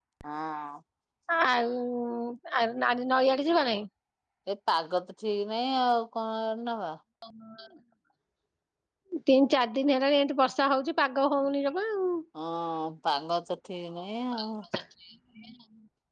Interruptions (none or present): none